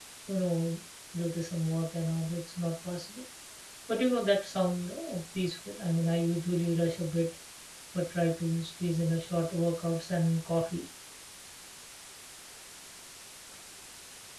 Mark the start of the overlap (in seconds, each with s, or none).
none